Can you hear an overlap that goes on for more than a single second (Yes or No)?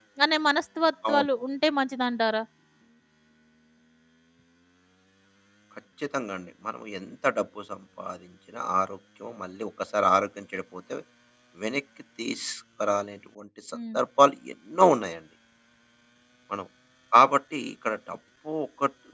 No